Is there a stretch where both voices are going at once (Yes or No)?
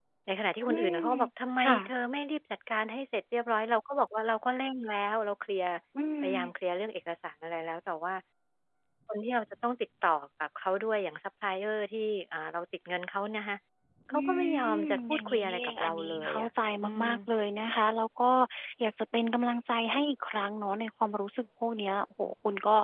Yes